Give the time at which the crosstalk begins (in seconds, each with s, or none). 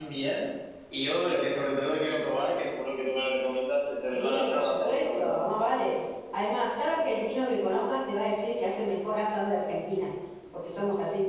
4.1 s